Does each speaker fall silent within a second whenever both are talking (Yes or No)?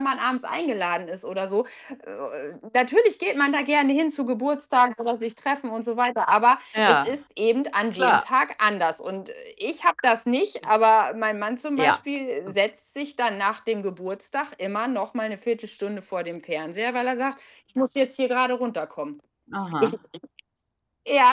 Yes